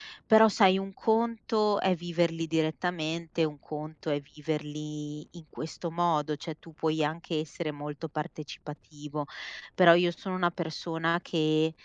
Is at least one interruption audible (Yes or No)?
No